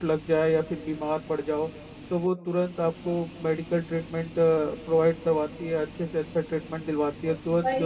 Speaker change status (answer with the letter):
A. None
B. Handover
B